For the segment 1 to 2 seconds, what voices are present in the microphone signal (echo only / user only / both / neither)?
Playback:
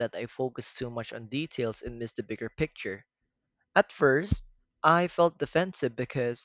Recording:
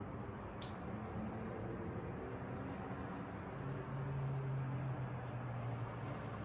neither